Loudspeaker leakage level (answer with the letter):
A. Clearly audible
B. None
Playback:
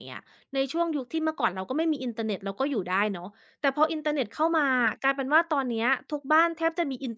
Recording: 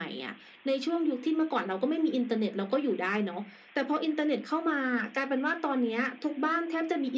A